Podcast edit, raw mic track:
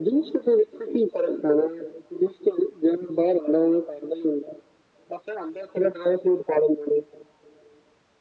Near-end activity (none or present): none